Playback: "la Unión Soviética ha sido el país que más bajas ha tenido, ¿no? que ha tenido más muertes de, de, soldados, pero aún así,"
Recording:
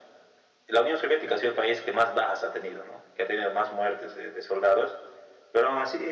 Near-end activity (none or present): none